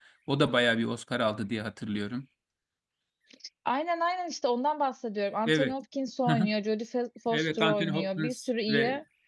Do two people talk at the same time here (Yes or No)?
Yes